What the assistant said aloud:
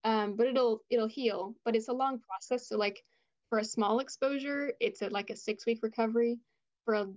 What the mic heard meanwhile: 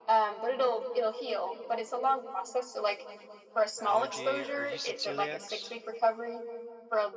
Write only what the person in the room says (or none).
allergy, or you said celiacs.